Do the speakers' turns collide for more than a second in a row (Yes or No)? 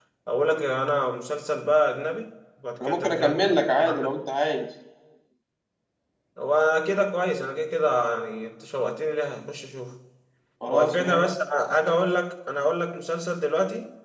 Yes